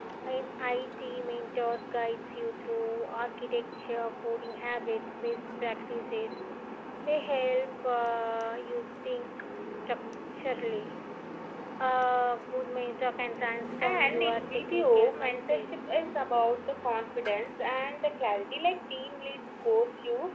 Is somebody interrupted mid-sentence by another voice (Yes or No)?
Yes